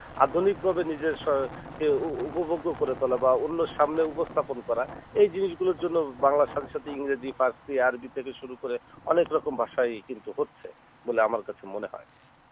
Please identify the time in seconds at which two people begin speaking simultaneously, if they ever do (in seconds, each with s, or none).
none